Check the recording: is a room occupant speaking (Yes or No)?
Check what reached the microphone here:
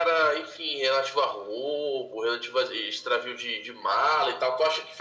No